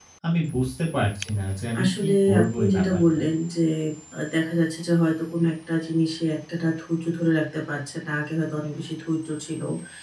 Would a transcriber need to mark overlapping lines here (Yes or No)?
Yes